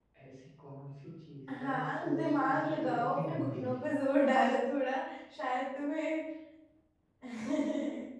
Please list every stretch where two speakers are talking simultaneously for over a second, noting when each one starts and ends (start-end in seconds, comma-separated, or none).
1.6-3.9